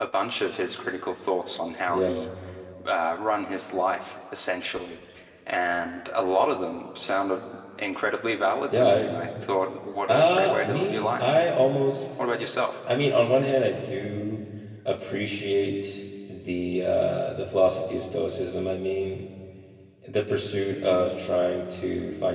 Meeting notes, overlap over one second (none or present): present